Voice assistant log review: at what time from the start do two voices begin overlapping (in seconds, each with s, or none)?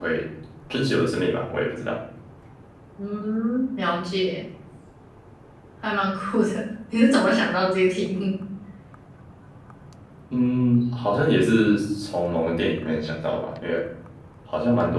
none